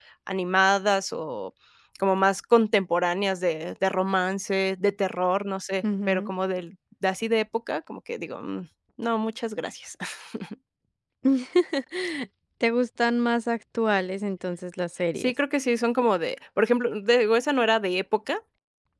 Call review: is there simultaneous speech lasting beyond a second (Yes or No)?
No